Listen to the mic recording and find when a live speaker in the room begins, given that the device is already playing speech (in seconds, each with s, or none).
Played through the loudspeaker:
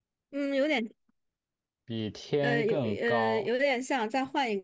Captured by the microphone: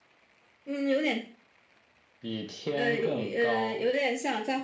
none